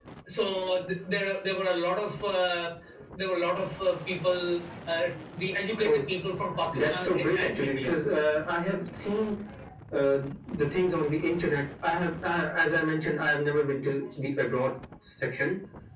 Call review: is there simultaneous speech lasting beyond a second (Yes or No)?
Yes